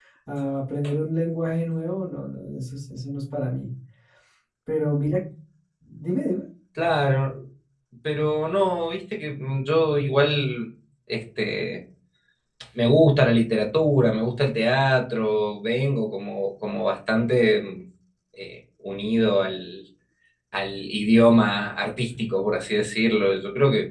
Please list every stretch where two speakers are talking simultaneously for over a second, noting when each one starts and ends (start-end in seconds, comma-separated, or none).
none